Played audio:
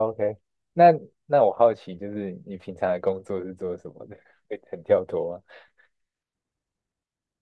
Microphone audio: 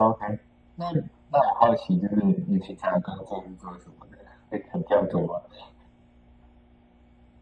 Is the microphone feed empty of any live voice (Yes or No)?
Yes